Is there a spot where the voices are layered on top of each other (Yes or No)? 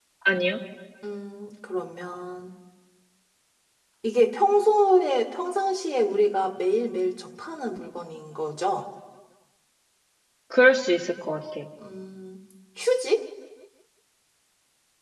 No